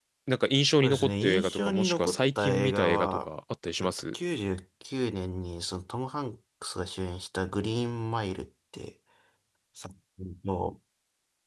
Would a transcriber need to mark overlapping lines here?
Yes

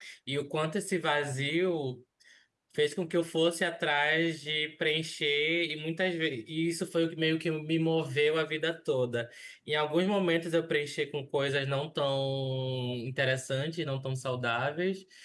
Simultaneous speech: No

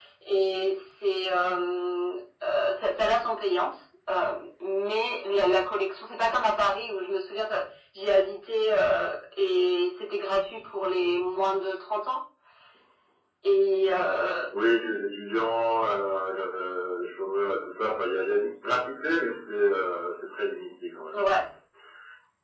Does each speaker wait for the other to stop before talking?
Yes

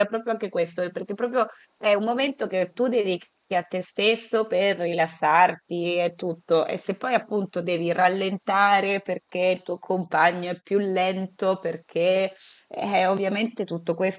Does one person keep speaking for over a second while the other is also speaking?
No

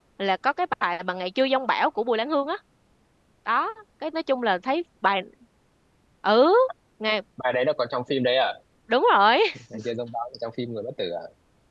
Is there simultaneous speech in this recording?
No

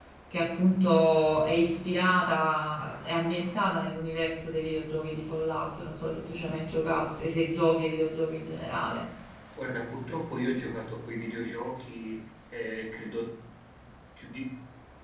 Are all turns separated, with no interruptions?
Yes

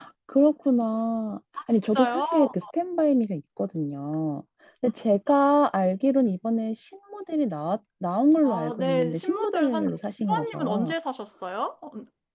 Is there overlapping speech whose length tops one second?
Yes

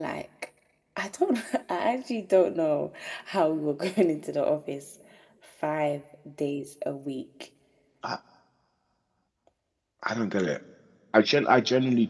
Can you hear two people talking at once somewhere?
No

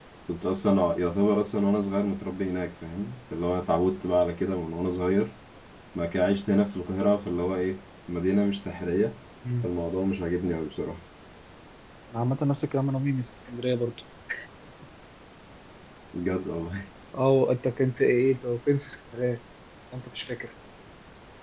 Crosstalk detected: No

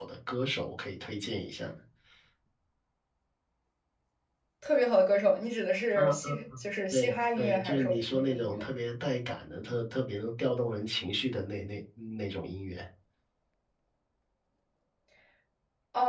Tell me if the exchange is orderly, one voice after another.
No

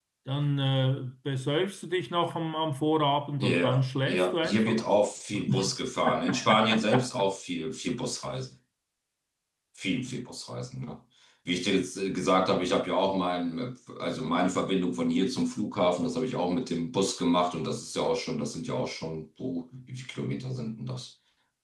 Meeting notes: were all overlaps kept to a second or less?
No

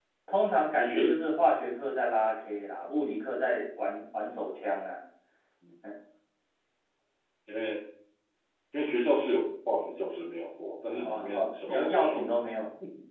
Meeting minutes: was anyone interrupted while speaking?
Yes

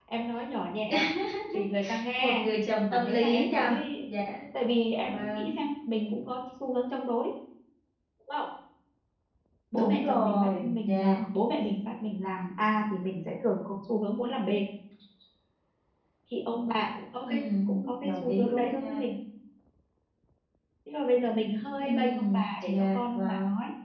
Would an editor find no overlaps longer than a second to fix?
No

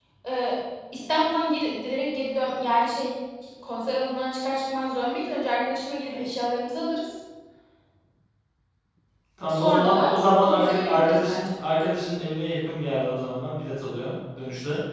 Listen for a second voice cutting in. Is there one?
Yes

